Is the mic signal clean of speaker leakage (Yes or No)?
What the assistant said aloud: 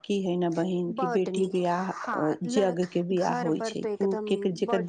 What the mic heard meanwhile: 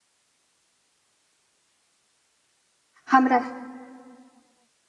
Yes